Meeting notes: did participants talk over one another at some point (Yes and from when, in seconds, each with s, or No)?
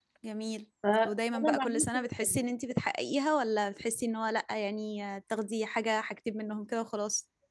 Yes, from 1.0 s